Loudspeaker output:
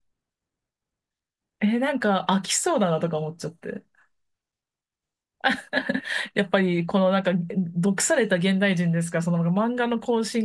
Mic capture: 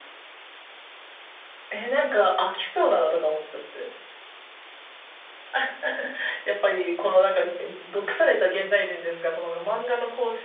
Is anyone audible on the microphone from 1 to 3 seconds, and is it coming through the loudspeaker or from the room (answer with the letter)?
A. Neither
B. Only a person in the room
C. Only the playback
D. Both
C